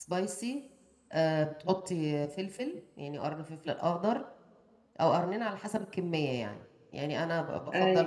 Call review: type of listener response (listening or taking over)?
listening